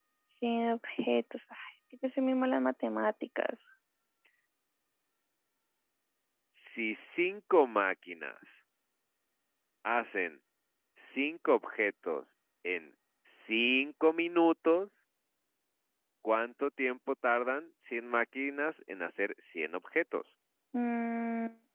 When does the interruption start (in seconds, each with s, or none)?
none